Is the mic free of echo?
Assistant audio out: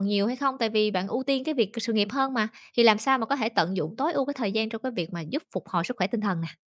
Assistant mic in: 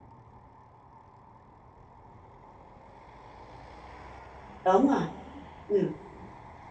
Yes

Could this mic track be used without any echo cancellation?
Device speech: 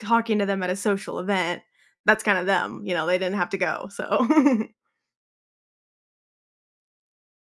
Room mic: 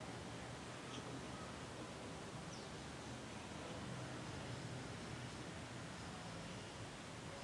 Yes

